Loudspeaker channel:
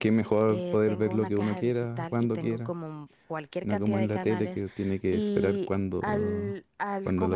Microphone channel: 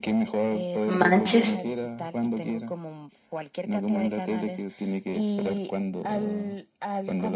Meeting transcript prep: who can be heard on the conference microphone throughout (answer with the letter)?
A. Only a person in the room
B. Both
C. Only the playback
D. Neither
B